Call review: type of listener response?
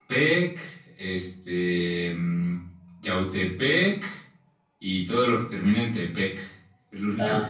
taking over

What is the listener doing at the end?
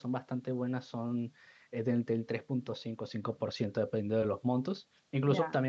listening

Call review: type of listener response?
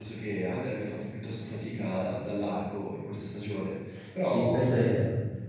taking over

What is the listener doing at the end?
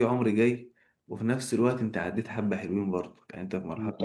taking over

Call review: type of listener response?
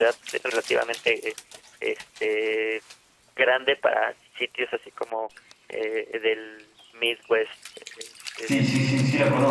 taking over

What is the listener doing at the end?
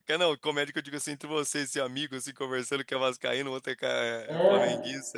taking over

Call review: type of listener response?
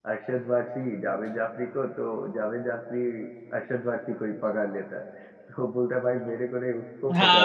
taking over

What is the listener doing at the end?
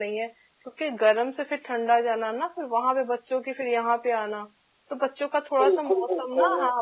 listening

